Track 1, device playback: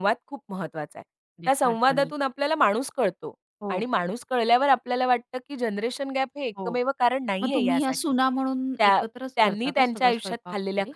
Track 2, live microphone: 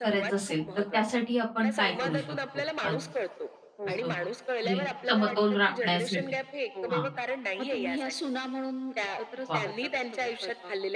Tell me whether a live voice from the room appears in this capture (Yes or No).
Yes